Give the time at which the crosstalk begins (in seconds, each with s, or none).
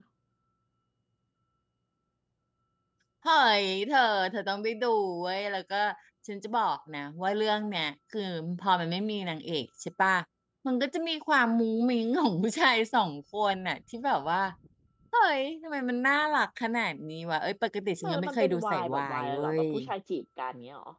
18.0 s